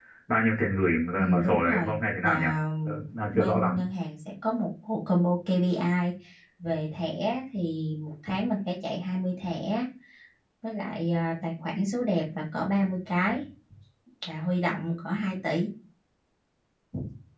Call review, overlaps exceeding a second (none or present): present